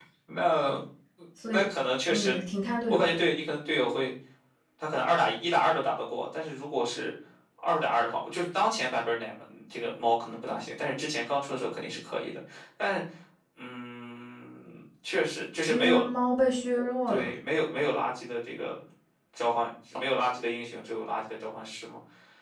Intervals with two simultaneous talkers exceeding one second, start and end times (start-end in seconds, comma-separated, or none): none